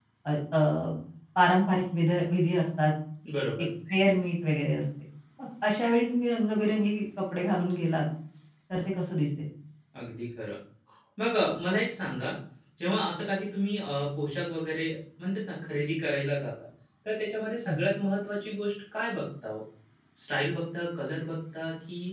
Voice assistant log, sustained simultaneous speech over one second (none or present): none